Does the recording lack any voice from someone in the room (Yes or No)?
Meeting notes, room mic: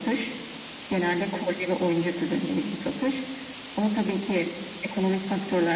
Yes